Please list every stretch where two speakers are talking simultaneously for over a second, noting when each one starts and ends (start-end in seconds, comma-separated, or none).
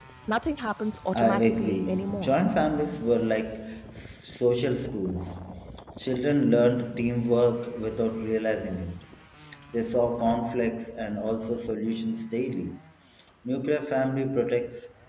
1.1-2.4